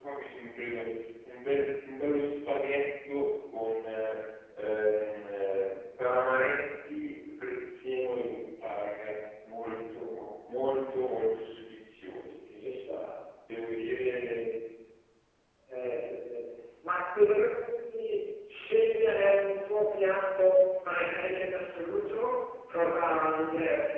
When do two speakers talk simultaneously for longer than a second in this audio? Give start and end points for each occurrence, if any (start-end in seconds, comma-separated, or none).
none